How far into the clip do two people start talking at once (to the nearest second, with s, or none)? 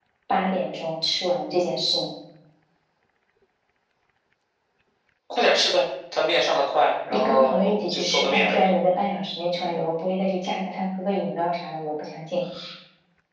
7 s